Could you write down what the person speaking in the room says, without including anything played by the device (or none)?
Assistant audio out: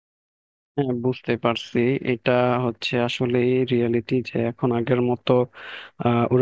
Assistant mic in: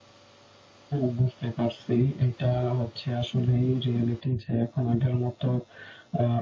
none